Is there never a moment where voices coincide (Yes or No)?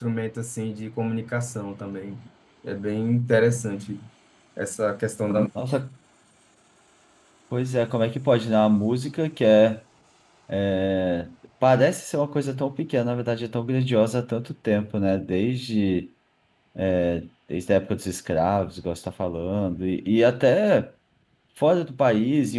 Yes